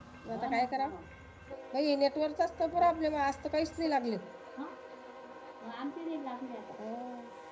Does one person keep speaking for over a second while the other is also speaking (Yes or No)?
No